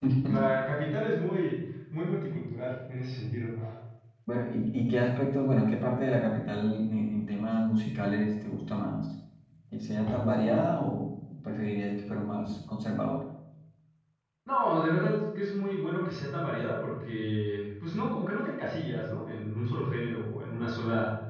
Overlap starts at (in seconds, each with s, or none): none